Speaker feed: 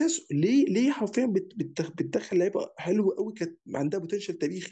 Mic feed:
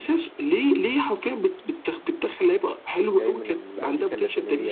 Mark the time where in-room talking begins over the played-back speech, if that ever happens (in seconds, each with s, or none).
3.1 s